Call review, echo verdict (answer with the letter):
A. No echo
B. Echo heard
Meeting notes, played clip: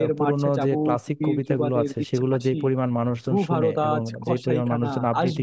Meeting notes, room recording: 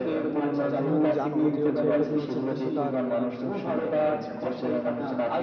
B